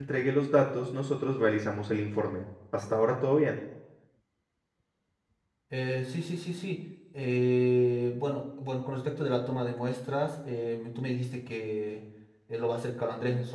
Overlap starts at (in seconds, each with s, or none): none